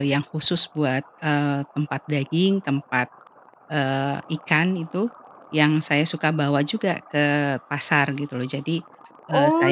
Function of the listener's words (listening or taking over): taking over